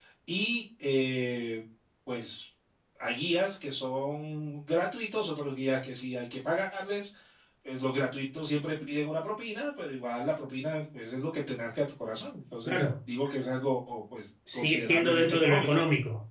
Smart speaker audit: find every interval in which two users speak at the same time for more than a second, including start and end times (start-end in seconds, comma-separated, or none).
14.5-15.8